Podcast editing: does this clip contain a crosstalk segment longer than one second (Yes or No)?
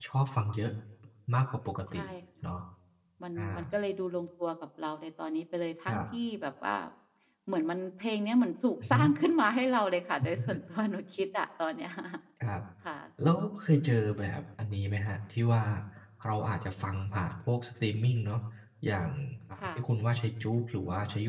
No